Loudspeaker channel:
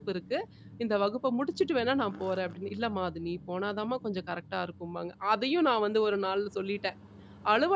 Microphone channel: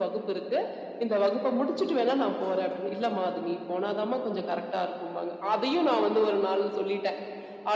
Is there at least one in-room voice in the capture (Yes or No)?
No